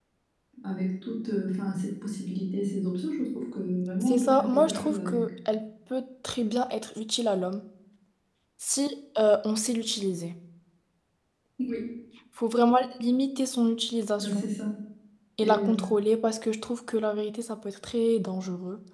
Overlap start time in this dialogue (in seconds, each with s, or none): 4.0 s